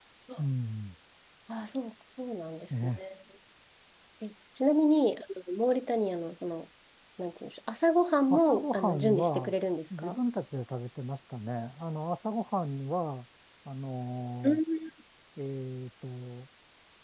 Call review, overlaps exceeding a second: present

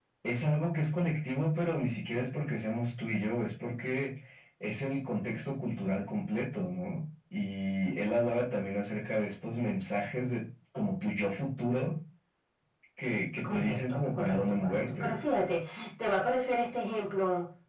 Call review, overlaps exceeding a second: present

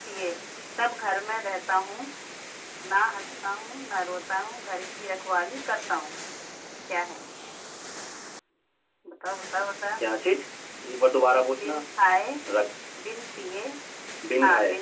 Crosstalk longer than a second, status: none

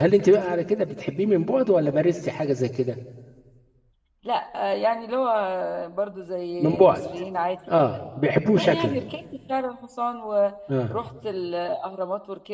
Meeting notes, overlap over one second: none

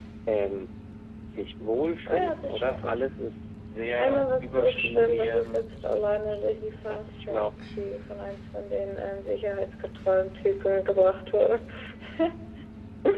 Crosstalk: present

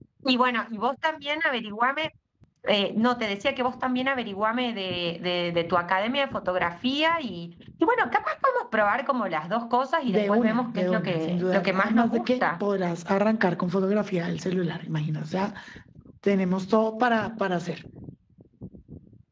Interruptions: present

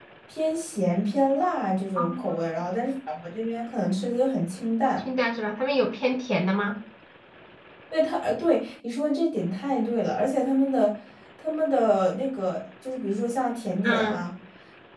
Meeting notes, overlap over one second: none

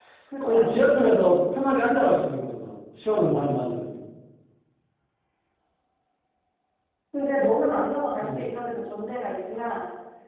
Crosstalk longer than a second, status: none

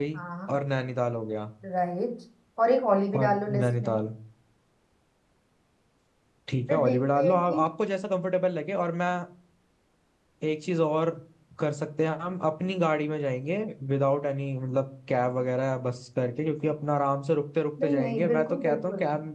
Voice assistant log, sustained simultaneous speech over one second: present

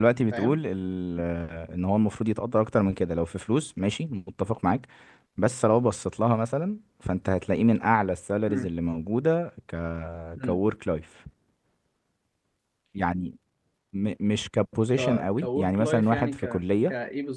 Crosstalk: present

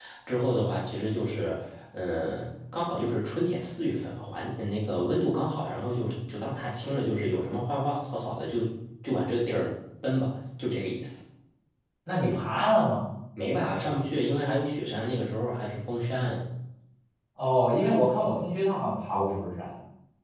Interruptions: none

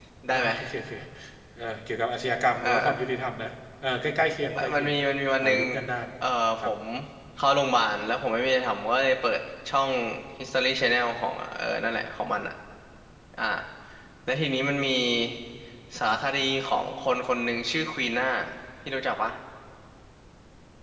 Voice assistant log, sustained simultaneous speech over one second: none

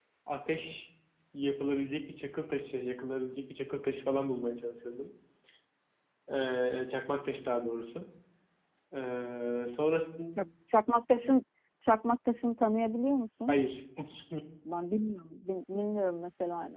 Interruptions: none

